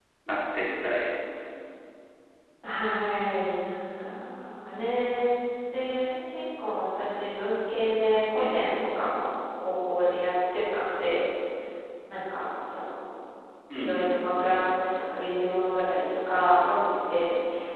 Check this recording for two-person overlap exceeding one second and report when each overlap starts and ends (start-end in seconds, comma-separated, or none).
none